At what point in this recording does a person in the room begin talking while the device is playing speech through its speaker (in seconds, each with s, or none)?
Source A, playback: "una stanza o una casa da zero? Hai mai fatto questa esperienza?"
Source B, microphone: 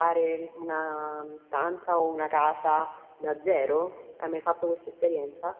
none